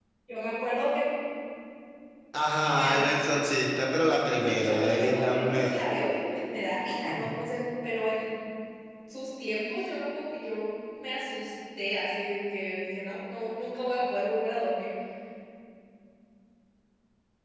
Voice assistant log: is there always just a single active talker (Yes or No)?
No